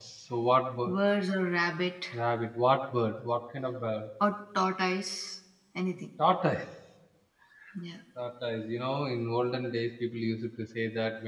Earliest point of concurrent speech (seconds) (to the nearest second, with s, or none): none